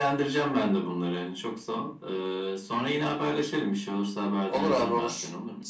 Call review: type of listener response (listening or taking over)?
taking over